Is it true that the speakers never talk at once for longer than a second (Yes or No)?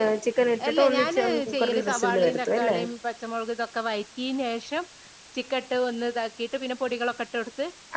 No